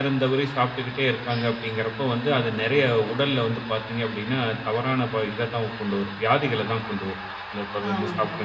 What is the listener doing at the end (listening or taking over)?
listening